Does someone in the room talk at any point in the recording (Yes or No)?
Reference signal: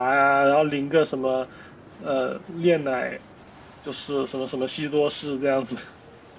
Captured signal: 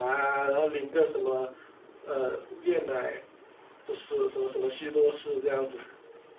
No